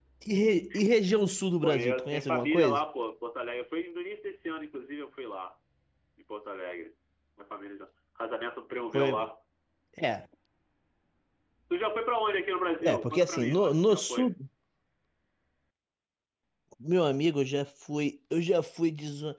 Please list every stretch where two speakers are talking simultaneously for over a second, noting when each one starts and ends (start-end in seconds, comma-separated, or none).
1.6-2.8, 12.8-14.3